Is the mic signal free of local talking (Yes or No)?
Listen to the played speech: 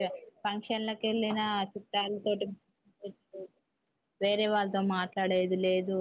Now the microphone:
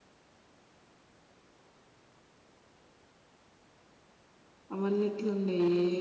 No